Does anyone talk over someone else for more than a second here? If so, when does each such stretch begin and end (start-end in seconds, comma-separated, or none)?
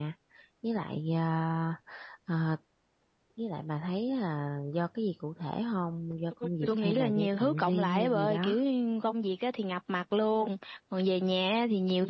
6.7-8.5